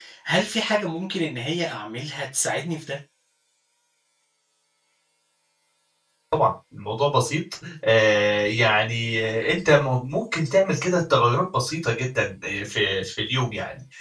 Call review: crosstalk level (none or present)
none